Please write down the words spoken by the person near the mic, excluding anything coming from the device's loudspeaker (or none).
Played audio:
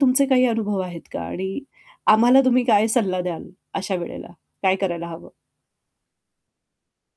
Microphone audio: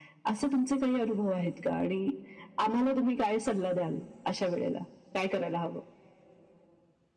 none